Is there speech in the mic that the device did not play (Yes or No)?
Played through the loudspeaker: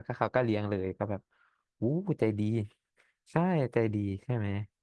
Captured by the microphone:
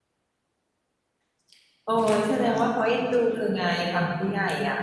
Yes